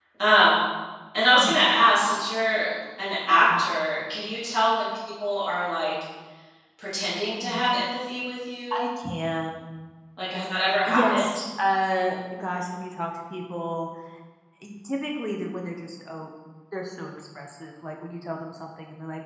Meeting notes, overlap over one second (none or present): none